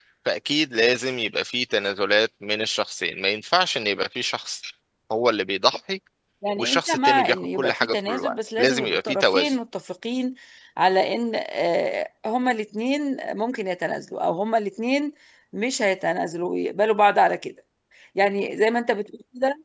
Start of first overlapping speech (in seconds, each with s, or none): 6.6 s